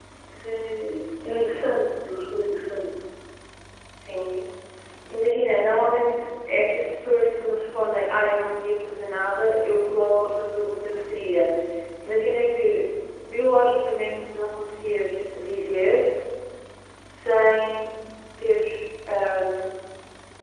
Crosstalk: none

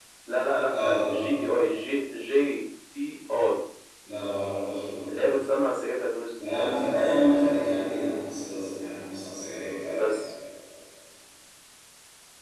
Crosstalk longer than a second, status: none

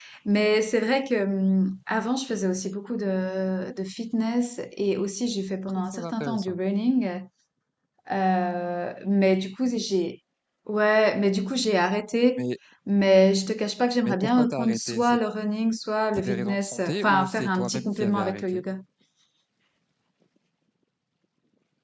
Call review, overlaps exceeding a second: present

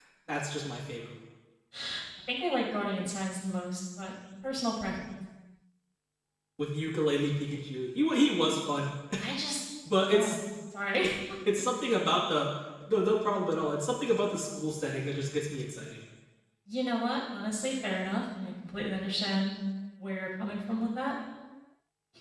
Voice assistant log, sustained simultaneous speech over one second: none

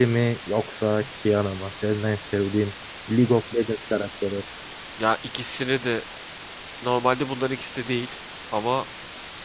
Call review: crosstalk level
none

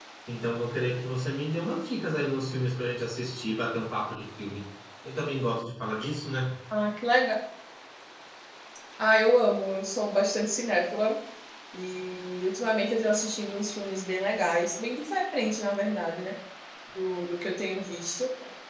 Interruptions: none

